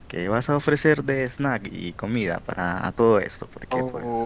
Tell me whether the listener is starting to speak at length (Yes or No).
Yes